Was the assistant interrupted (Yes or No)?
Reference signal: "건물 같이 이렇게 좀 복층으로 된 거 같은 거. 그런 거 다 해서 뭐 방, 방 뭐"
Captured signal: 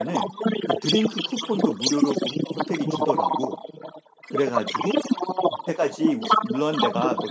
Yes